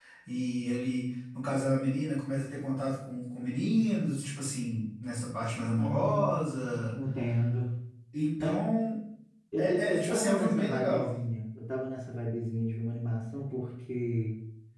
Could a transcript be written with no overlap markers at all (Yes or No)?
No